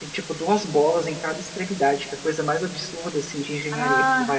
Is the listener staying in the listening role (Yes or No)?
No